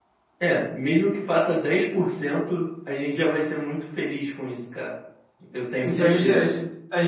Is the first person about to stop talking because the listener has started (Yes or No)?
Yes